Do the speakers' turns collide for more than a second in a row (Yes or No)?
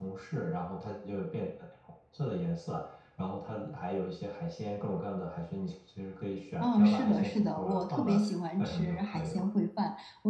Yes